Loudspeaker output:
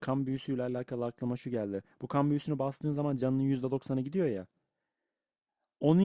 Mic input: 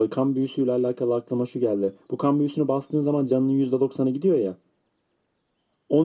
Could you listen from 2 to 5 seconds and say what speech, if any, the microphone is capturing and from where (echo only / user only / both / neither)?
echo only